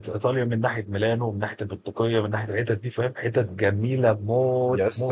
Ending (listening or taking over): taking over